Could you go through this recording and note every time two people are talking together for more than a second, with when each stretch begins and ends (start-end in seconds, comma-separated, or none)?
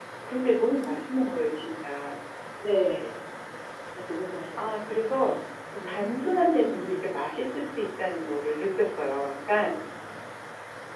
5.8-7.2